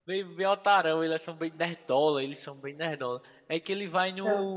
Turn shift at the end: No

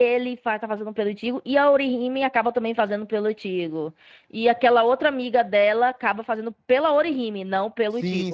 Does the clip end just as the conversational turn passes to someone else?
Yes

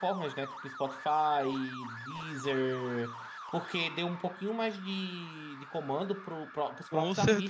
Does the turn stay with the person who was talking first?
Yes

